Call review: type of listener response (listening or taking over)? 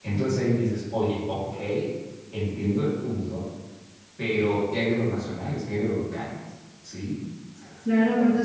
taking over